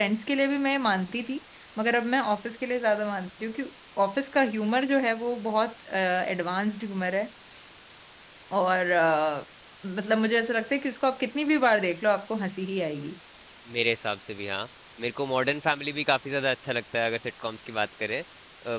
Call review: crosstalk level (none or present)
none